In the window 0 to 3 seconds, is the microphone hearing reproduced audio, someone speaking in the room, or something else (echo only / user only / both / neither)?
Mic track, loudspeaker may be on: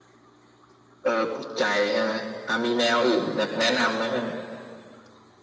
echo only